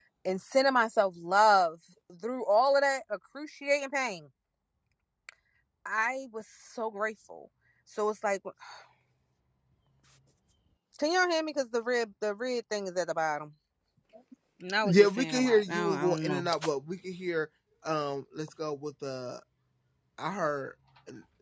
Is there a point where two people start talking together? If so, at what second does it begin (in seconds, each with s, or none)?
14.8 s